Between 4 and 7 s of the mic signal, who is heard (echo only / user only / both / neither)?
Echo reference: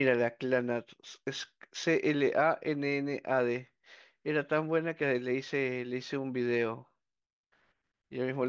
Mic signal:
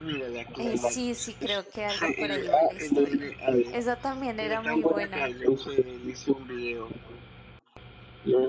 both